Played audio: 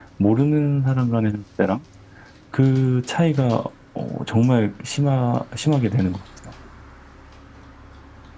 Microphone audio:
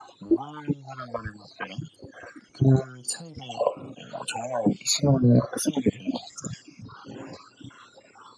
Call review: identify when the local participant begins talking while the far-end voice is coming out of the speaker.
none

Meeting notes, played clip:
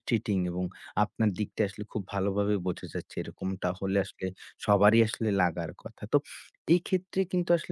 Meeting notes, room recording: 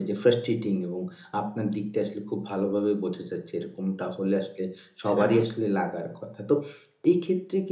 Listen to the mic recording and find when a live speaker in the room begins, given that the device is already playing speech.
5.0 s

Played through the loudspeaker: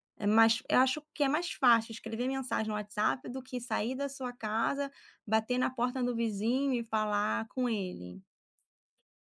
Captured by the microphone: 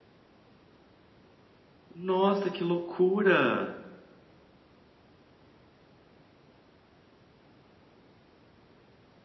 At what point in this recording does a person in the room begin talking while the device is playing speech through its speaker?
1.9 s

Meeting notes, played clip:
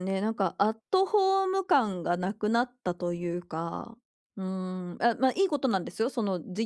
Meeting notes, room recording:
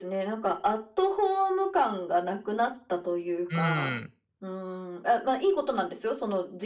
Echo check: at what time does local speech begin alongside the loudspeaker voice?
3.5 s

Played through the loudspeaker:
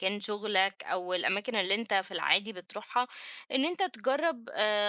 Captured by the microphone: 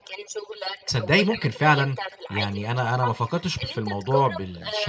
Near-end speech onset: 0.9 s

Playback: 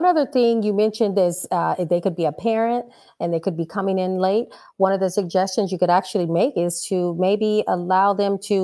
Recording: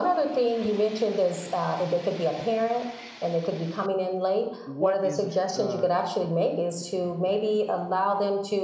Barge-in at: 4.6 s

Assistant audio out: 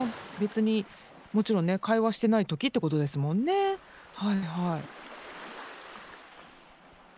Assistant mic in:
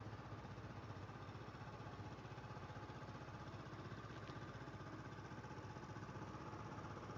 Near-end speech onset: none

